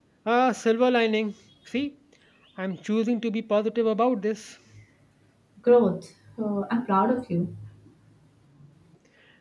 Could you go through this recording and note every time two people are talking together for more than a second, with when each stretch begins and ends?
none

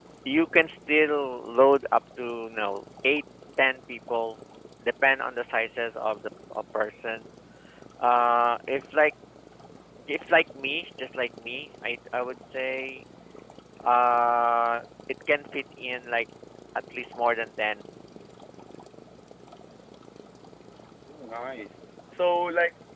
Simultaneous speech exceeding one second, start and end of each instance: none

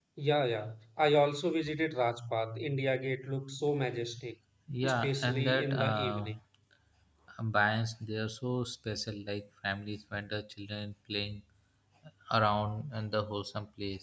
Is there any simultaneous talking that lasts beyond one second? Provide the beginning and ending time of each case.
4.8-6.3

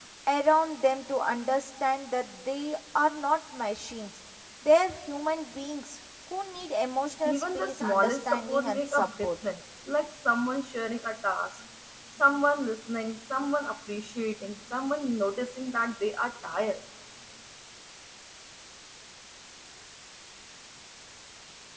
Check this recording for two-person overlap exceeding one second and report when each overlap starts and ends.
7.2-9.3

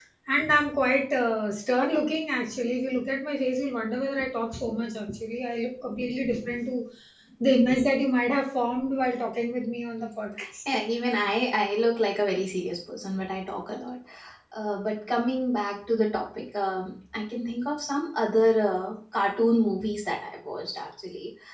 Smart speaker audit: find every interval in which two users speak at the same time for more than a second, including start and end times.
none

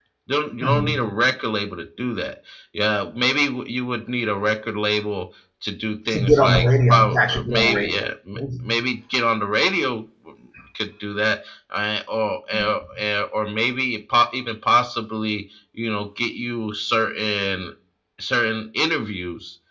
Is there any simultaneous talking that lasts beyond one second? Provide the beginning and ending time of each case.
6.1-8.0

